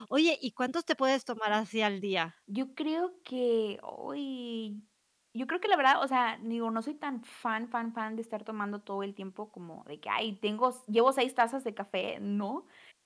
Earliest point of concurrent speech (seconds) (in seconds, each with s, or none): none